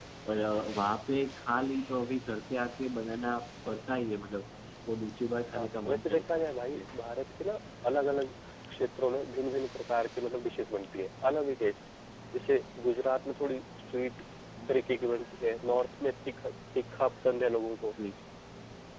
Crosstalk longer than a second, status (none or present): present